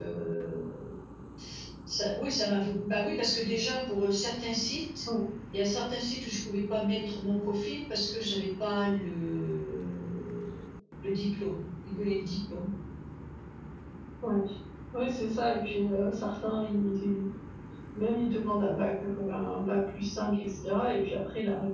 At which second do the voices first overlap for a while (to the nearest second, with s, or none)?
none